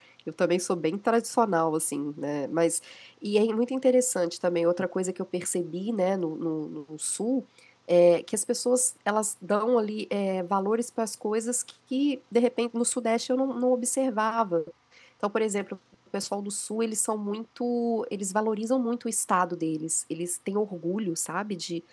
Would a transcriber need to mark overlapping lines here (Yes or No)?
No